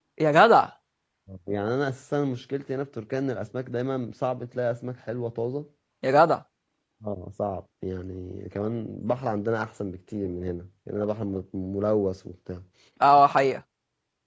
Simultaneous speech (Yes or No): No